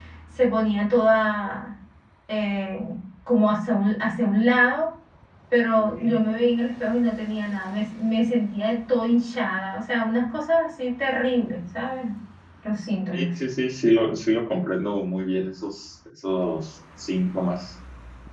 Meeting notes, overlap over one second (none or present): none